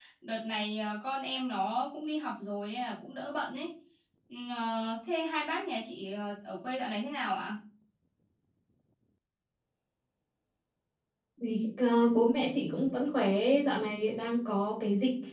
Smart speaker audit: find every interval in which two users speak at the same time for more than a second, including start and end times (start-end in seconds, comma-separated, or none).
none